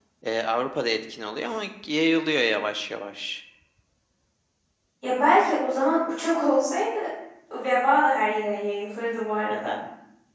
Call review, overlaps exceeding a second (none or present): none